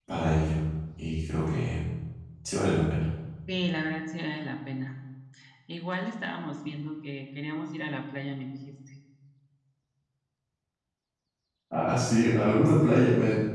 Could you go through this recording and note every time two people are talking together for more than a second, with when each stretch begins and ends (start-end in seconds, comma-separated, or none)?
none